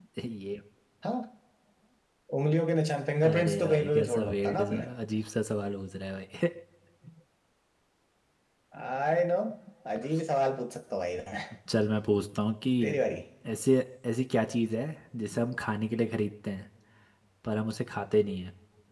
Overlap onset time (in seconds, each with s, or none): 3.3 s